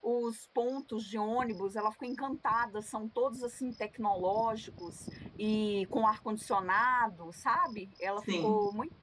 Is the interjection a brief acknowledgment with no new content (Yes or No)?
Yes